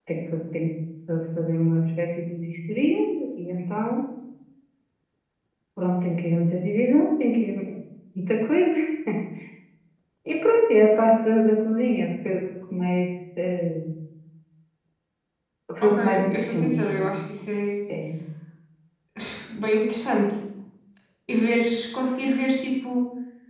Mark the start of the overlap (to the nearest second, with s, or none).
16 s